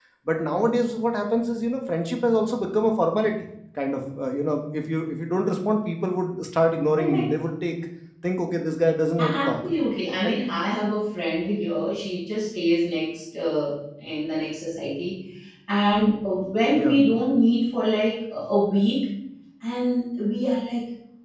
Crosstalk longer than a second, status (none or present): none